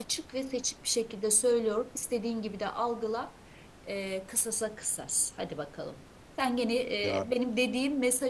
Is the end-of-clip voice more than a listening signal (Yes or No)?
No